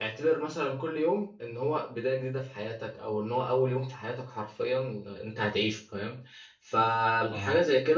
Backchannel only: Yes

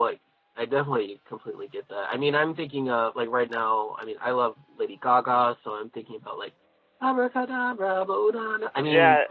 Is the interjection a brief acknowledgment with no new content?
No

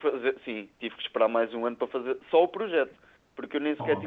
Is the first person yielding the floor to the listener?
No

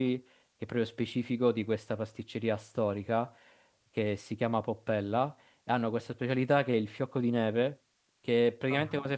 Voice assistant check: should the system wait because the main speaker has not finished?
Yes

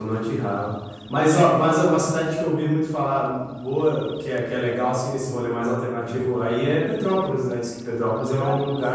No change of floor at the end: No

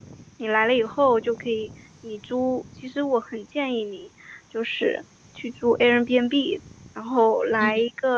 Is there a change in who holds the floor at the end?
No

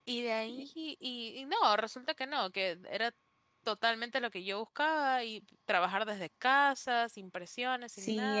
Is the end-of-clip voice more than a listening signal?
Yes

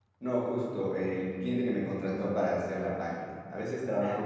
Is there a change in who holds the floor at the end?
No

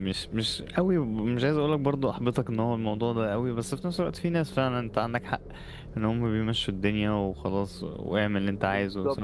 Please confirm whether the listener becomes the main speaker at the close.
Yes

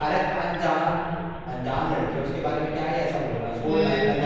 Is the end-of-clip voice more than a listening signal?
Yes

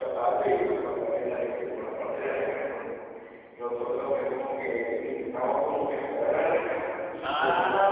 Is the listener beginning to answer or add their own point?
Yes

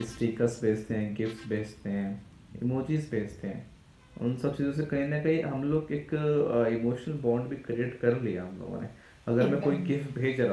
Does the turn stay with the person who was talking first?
Yes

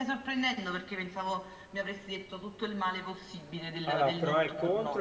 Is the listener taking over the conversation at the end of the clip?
Yes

